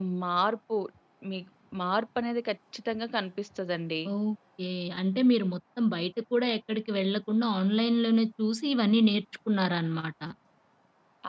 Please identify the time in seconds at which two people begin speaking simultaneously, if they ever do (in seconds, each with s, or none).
none